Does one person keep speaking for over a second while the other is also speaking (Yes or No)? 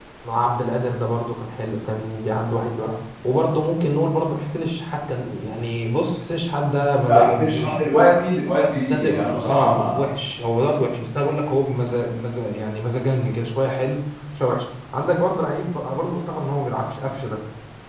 Yes